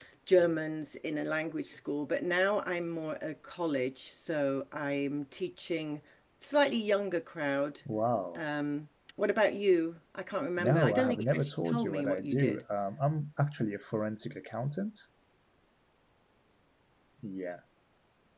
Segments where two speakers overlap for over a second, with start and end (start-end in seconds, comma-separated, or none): 10.6-12.6